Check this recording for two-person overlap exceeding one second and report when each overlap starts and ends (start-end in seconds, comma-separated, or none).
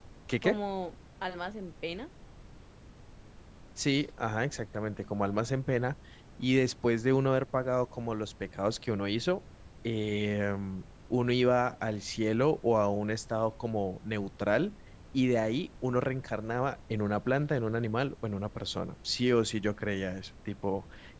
none